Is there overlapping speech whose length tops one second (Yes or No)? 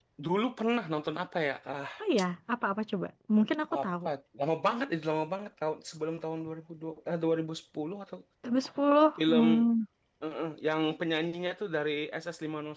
No